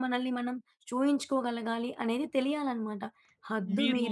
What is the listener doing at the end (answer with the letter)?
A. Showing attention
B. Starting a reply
A